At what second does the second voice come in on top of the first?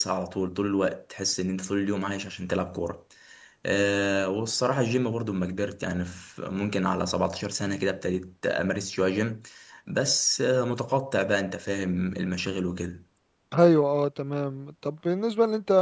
none

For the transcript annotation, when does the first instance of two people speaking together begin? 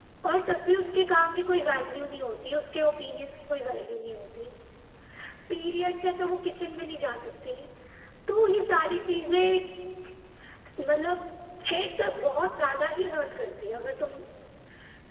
none

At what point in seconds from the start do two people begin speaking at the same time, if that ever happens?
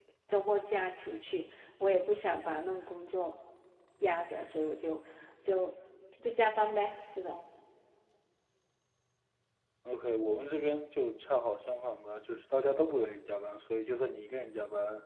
none

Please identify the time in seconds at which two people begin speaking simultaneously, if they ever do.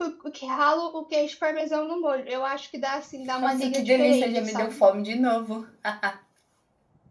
3.4 s

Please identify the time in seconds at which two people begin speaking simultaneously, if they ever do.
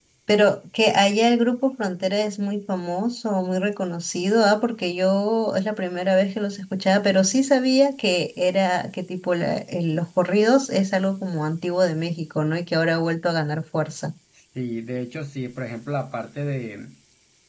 none

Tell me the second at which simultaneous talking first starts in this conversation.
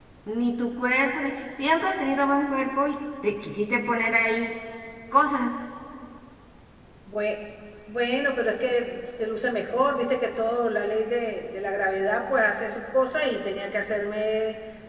none

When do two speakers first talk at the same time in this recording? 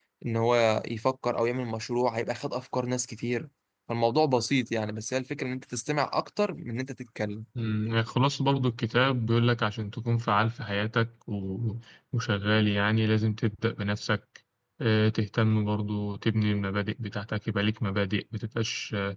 none

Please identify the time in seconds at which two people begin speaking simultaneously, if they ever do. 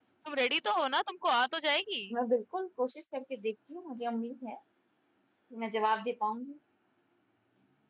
none

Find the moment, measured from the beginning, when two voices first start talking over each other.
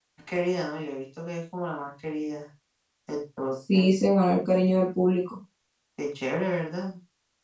none

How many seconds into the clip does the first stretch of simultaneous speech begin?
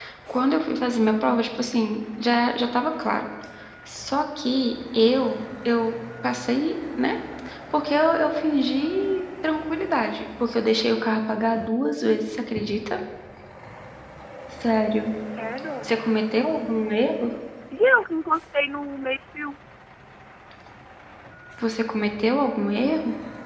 none

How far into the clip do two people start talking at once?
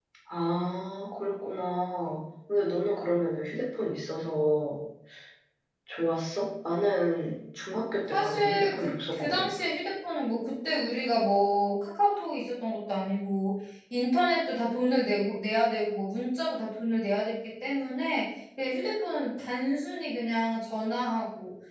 8.1 s

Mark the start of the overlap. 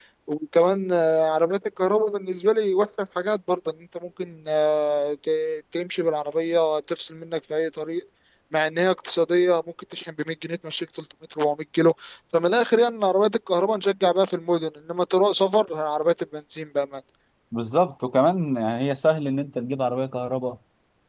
none

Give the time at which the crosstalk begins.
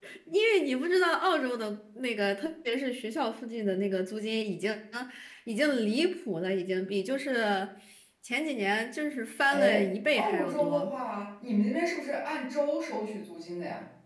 9.5 s

